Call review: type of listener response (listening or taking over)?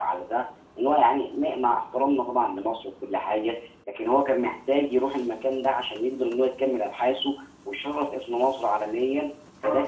taking over